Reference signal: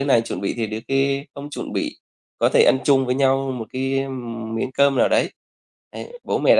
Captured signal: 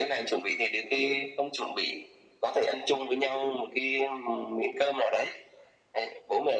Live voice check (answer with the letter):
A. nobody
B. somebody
A